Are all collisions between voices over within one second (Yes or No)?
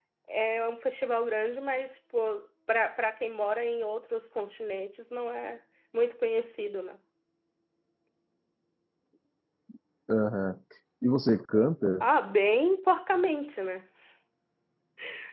Yes